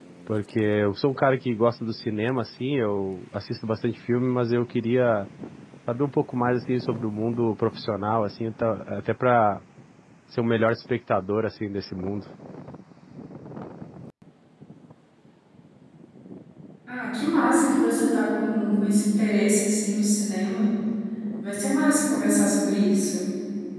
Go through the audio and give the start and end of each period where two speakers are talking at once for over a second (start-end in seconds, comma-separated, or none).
none